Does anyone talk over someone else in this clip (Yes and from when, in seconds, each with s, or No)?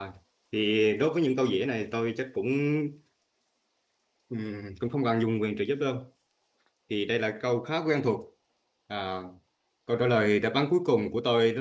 No